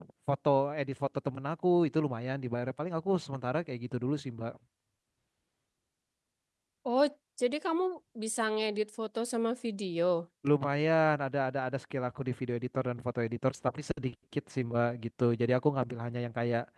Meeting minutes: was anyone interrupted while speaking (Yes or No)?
No